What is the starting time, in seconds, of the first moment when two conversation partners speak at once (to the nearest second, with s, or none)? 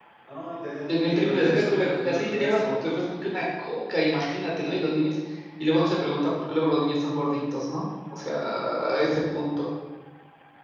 1 s